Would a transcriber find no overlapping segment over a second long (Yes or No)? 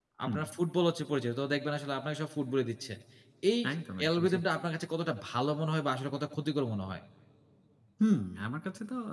Yes